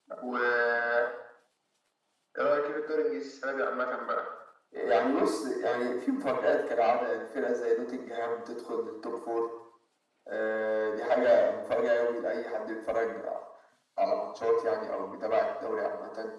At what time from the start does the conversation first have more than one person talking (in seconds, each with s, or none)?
none